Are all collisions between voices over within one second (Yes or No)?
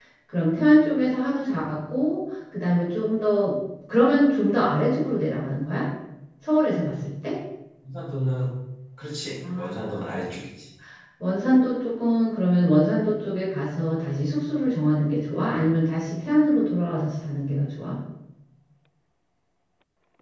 Yes